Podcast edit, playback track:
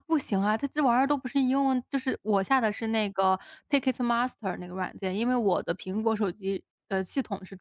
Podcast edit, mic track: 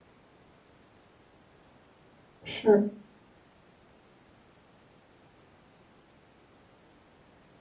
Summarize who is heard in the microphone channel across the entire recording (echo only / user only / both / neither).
user only